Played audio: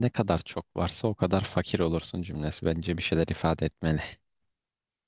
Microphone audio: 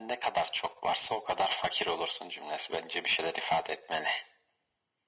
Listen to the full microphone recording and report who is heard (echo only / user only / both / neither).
echo only